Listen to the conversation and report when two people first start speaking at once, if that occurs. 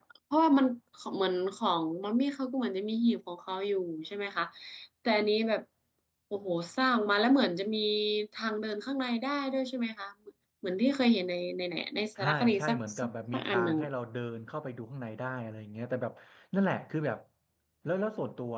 12 s

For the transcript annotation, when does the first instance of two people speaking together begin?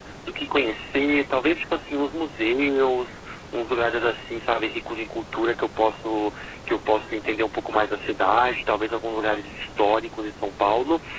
none

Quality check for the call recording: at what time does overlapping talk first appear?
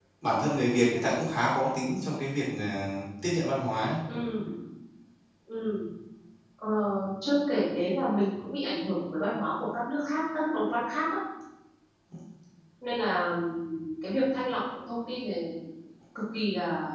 none

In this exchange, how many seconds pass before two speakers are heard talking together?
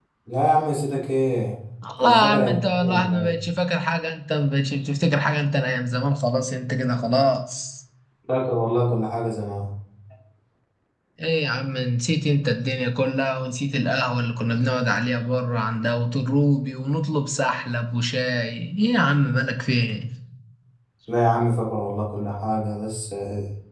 2 s

